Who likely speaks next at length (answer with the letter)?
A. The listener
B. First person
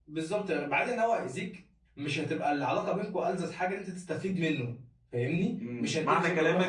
A